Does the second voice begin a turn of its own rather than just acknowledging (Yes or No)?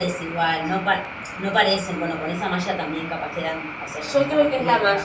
Yes